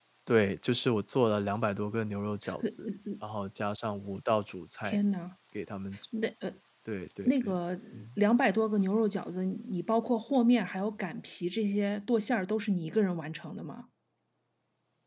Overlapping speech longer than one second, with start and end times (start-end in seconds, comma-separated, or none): none